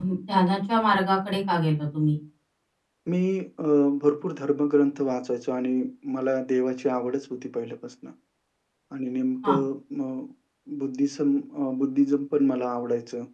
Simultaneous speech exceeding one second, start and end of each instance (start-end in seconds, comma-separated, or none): none